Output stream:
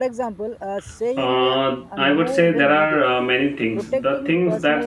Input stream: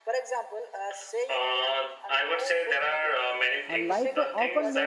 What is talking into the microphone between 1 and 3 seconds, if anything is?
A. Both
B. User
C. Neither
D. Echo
D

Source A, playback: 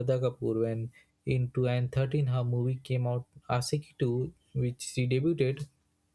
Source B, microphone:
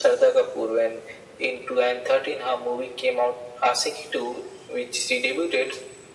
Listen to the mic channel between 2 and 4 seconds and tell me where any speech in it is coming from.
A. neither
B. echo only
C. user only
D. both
B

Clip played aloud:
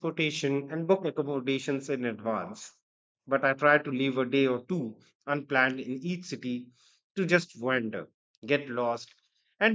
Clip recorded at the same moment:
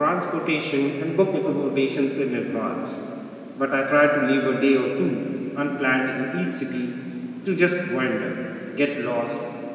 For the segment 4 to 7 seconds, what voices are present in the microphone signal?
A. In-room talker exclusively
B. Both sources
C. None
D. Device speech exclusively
D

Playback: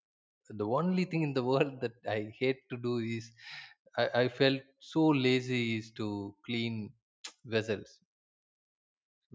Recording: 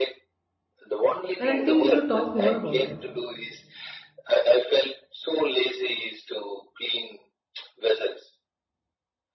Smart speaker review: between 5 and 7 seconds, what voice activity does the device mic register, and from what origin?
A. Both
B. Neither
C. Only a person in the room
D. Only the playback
D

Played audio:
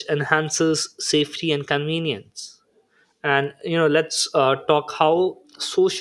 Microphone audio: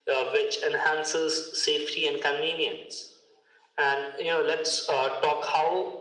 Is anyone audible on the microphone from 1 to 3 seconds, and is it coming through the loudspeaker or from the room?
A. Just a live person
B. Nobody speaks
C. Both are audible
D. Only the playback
D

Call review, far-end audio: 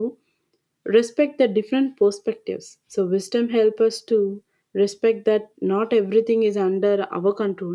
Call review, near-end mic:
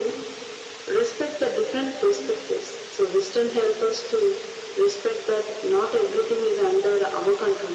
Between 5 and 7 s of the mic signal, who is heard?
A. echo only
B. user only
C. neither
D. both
A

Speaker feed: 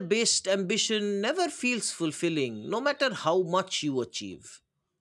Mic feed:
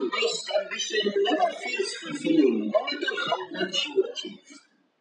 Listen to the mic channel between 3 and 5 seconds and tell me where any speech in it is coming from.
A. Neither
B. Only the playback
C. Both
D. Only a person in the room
B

